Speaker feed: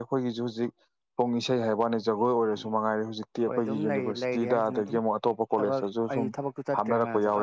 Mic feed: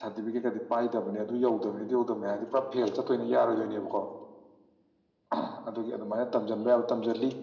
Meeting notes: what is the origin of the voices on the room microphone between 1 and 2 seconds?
user only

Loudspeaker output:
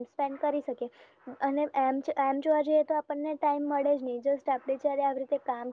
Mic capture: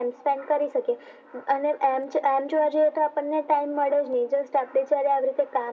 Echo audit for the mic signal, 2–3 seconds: echo only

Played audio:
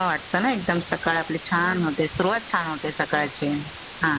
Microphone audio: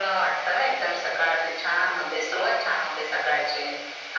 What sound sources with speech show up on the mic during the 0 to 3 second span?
echo only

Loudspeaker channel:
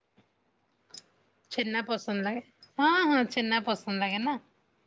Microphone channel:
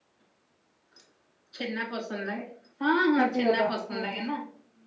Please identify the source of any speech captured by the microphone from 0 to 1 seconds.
neither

